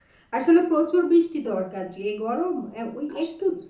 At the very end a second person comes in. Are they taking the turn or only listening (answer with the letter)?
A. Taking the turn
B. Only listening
B